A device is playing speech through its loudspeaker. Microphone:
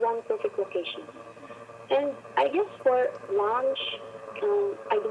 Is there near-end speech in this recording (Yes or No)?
No